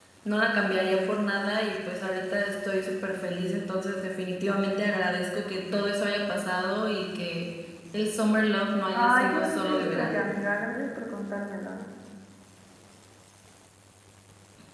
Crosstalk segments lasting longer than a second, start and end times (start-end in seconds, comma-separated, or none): 8.9-10.2